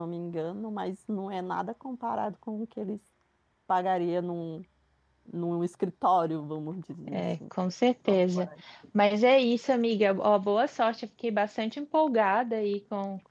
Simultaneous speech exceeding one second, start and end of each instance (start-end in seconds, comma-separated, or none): none